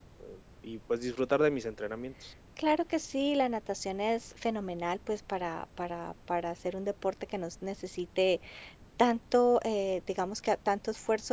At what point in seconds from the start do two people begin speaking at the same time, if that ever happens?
none

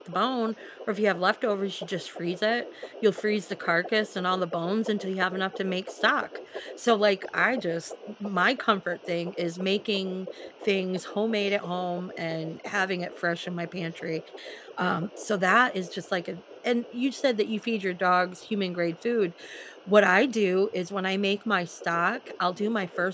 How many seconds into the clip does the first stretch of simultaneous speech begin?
none

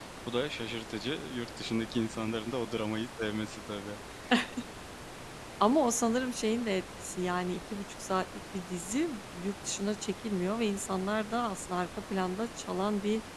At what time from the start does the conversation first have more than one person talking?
none

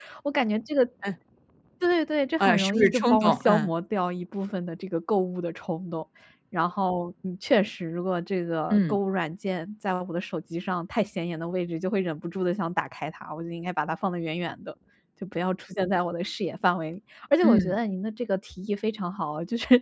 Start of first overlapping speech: 2.4 s

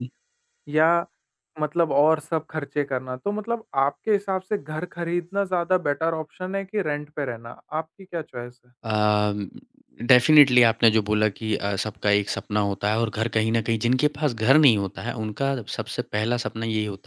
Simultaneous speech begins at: none

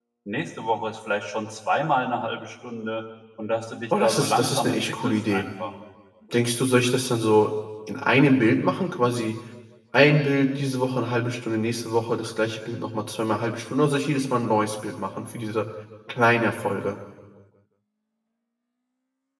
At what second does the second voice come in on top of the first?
3.9 s

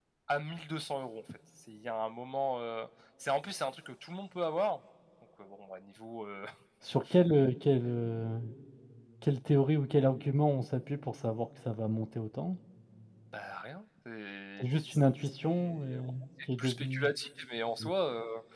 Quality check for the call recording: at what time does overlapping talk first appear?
14.6 s

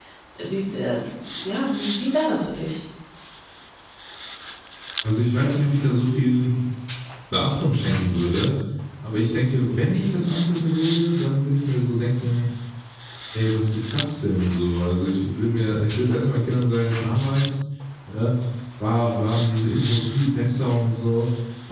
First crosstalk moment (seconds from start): none

